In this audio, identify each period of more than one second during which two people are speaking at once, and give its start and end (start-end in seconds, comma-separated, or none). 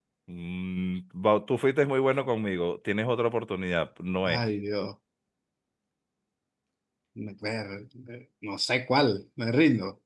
none